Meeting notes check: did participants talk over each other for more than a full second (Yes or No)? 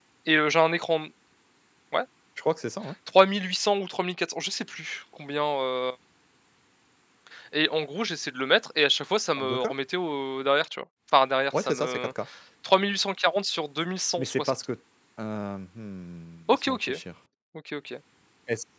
No